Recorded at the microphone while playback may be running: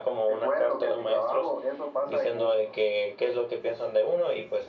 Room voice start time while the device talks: none

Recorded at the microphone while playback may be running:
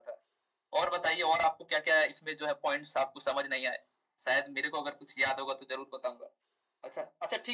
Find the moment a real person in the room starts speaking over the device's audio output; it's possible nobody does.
none

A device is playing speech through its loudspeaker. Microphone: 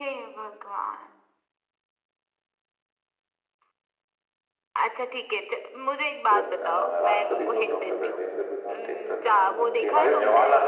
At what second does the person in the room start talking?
6.3 s

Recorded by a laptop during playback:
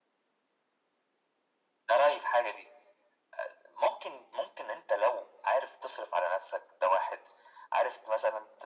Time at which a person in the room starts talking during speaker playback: none

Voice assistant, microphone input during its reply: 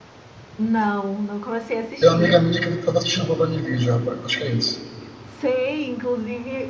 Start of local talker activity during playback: 2.0 s

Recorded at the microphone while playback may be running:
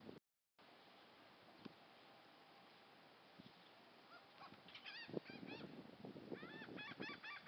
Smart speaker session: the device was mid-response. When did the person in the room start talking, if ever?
none

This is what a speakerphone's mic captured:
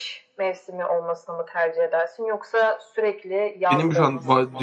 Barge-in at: 3.7 s

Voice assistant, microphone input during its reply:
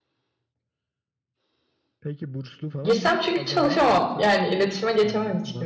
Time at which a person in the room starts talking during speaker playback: 2.8 s

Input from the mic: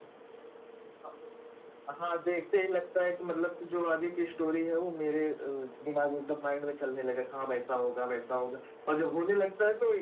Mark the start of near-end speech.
none

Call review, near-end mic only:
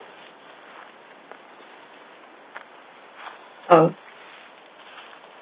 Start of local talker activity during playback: 3.6 s

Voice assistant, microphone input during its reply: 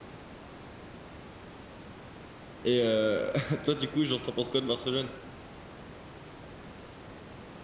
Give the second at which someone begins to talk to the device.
2.6 s

